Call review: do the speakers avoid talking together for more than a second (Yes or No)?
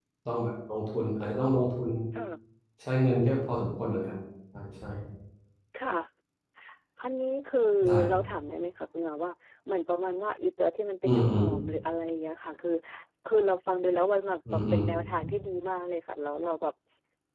Yes